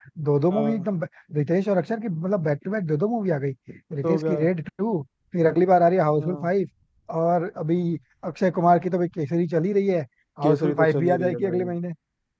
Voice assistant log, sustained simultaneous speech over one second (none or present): present